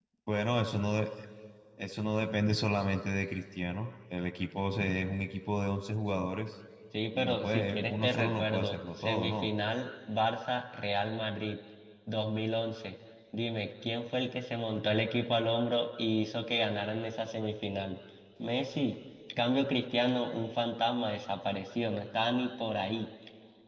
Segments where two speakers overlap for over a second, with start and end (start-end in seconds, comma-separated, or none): 7.1-9.5